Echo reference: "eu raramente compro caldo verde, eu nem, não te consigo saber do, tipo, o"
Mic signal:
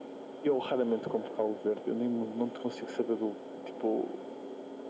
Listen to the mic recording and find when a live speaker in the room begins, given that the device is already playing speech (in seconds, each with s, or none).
none